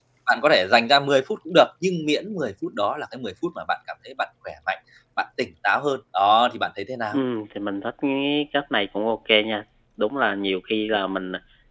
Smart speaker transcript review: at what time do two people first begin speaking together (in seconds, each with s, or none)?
none